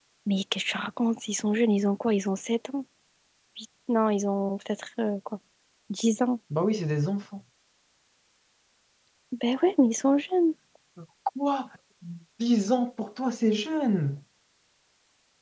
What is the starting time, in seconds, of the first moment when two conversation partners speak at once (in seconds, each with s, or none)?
none